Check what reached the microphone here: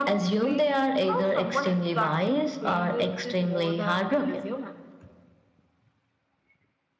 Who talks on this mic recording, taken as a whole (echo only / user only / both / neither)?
echo only